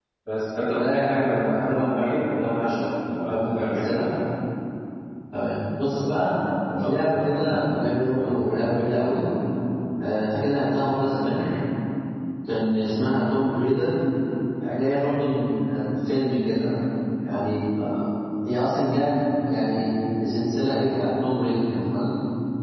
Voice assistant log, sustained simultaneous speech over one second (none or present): present